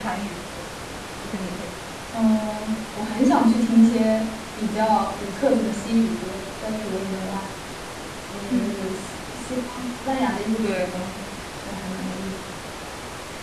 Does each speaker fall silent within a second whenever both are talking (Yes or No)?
Yes